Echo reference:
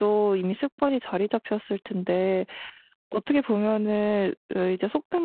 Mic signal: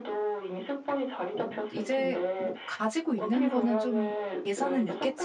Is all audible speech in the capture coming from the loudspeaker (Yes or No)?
No